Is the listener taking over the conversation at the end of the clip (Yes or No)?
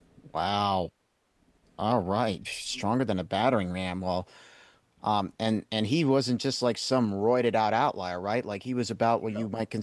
No